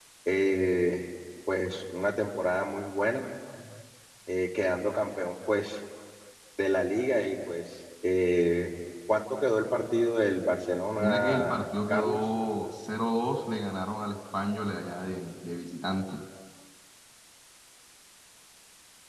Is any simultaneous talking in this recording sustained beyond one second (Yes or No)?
Yes